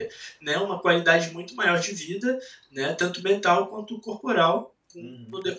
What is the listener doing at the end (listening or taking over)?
taking over